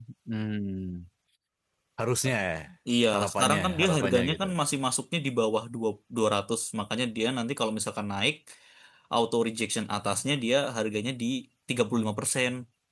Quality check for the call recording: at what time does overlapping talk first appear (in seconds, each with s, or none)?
3.1 s